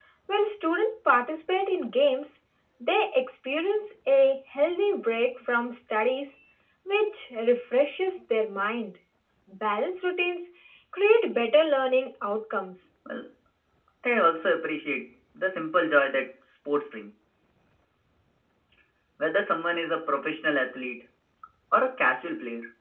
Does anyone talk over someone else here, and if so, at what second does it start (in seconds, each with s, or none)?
none